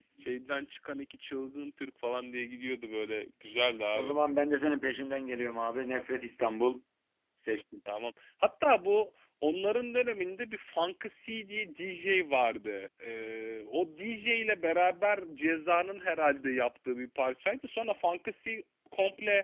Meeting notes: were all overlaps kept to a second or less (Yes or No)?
Yes